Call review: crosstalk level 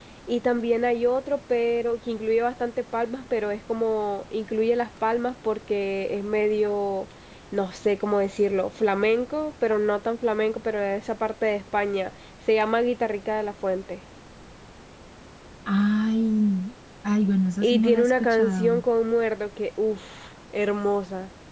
present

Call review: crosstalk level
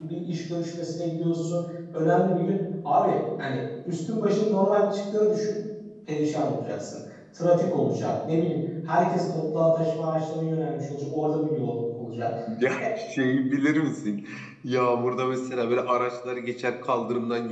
none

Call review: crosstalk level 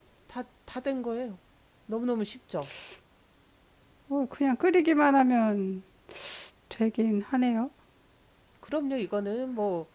none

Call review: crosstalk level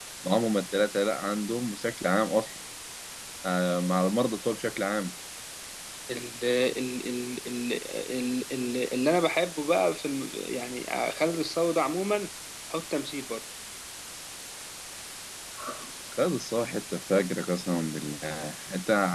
none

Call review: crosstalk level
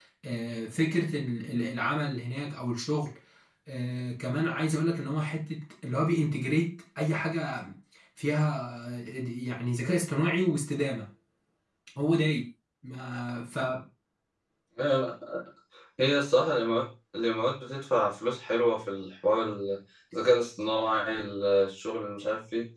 none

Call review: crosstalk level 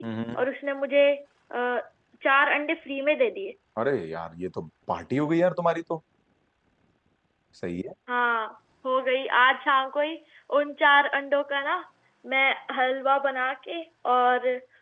none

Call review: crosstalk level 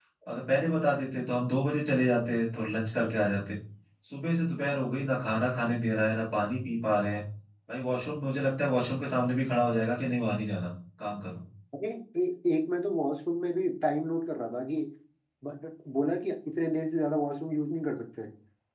none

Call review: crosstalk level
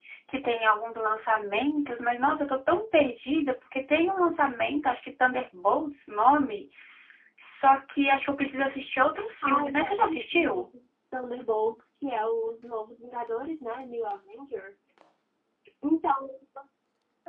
present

